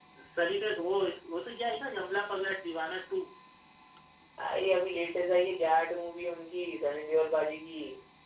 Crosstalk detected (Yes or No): No